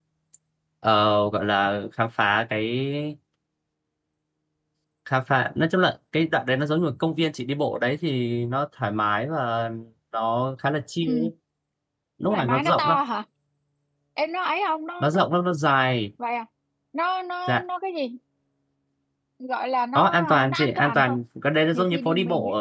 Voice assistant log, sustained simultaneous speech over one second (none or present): present